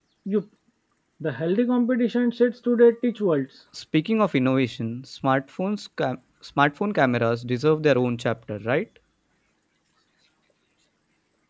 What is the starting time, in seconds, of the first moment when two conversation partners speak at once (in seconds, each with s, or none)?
none